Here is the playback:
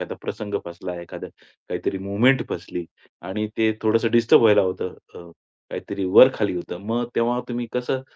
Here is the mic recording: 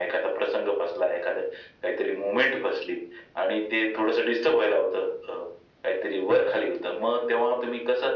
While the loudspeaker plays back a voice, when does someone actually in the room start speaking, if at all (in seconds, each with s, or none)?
none